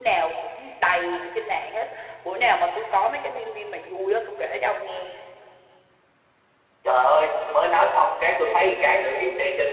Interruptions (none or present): none